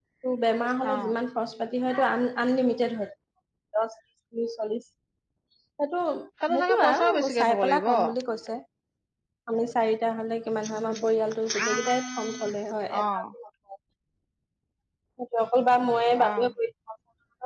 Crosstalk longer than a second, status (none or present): present